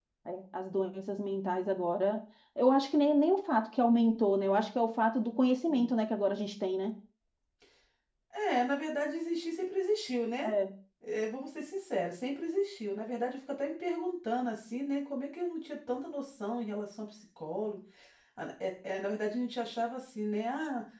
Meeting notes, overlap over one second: none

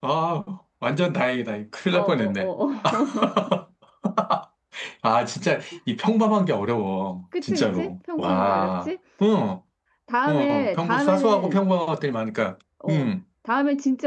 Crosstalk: present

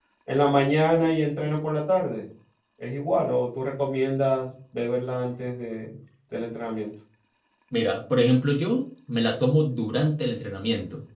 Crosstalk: none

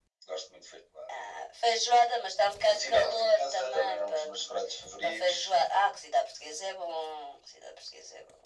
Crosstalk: present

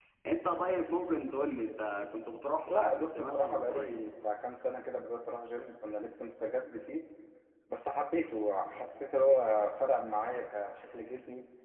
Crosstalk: present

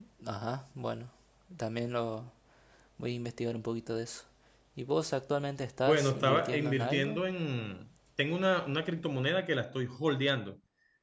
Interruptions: present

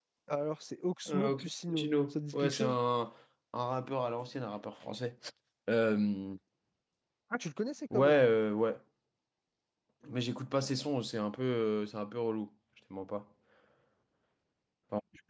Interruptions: present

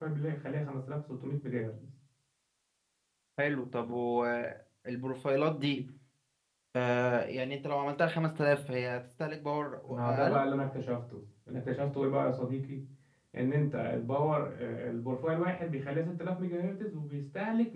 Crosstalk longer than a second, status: none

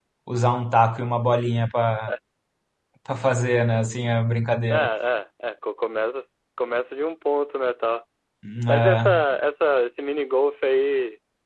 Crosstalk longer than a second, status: none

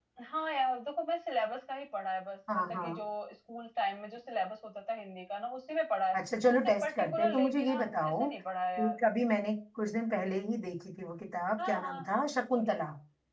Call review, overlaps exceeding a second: present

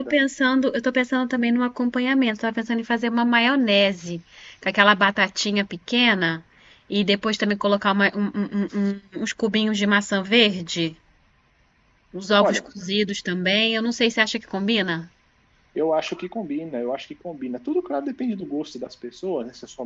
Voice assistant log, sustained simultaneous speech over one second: none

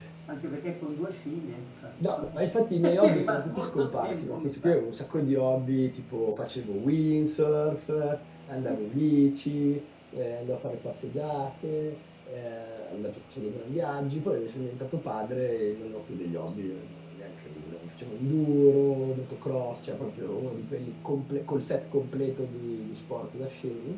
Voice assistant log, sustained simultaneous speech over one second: present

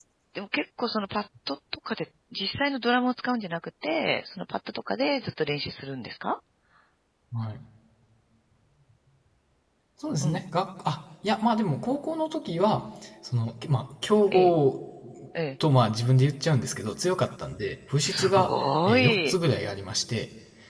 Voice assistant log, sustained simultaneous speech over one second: present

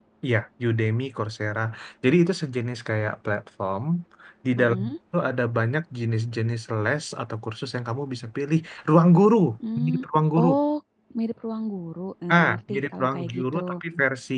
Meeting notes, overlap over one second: present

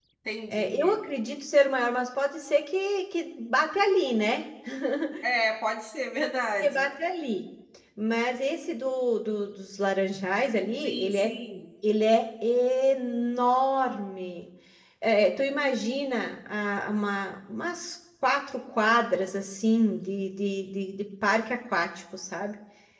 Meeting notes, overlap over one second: none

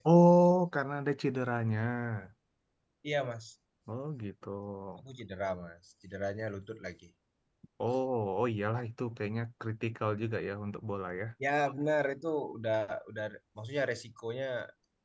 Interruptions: none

